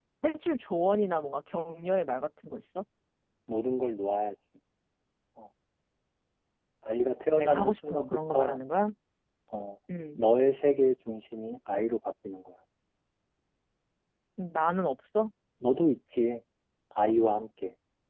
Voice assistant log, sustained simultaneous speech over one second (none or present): present